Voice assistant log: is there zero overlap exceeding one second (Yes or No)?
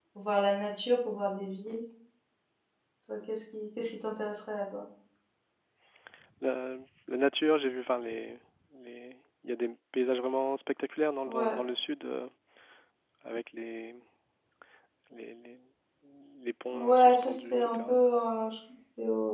No